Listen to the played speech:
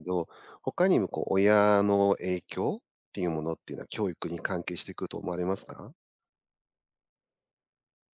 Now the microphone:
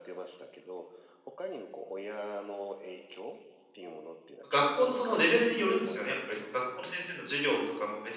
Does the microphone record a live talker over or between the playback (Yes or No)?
Yes